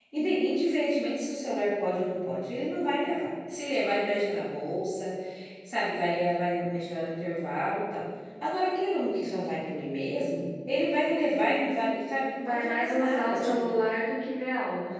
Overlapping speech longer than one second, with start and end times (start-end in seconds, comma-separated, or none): 12.4-13.7